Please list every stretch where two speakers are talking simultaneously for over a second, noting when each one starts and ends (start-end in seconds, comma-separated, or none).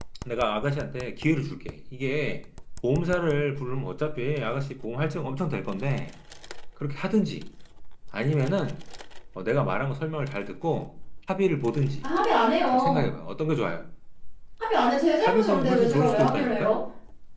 15.2-16.8